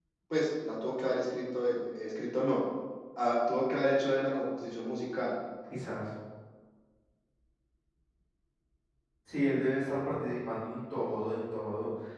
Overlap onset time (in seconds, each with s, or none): none